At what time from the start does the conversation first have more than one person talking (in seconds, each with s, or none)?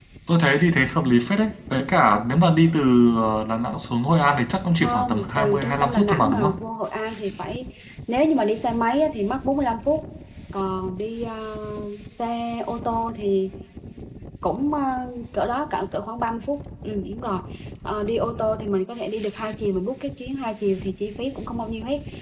4.7 s